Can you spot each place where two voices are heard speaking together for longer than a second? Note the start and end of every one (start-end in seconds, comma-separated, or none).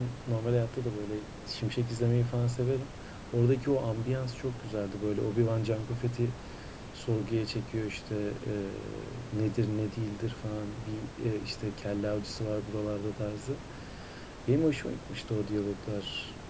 none